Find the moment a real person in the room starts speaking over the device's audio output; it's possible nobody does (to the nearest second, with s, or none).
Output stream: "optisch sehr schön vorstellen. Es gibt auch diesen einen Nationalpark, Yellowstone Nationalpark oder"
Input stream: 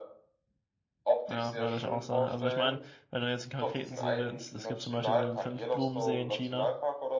1 s